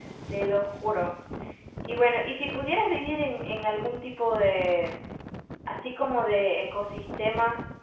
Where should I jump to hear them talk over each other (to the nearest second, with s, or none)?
none